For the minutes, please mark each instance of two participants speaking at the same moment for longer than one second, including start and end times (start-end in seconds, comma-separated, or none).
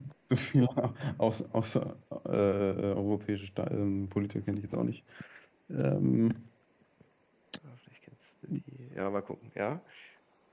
none